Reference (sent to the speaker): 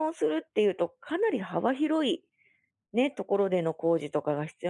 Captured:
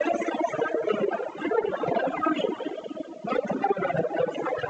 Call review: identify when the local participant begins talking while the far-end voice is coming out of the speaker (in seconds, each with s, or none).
none